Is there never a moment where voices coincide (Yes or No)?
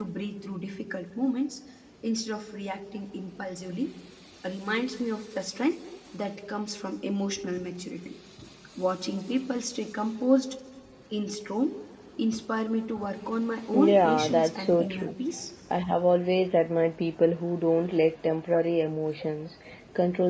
No